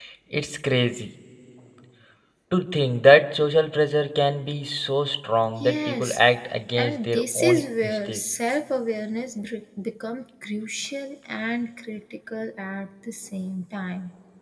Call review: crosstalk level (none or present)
present